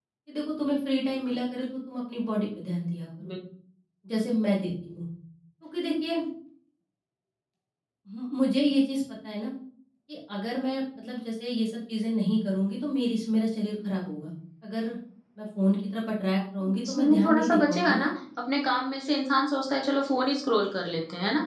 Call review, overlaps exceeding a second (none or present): present